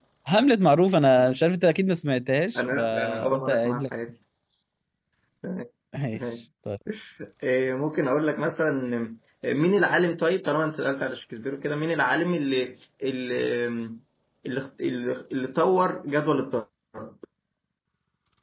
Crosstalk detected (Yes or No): Yes